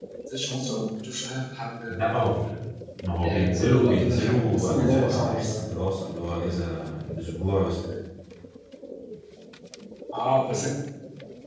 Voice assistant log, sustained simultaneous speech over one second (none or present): present